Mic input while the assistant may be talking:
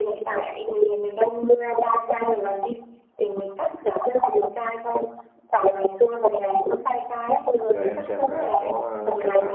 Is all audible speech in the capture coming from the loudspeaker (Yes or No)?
No